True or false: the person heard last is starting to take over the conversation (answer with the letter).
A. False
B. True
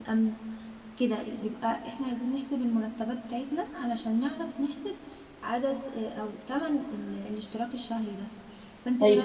A